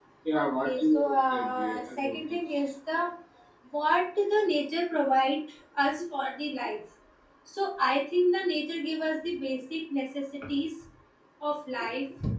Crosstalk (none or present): present